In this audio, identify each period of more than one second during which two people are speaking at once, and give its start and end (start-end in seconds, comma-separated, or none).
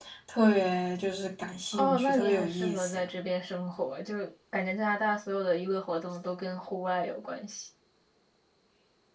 1.8-3.0